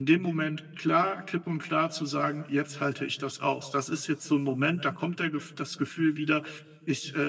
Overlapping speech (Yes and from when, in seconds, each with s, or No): No